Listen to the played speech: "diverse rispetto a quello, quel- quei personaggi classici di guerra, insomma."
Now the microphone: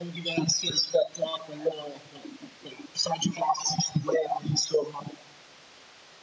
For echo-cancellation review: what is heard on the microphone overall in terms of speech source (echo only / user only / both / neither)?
echo only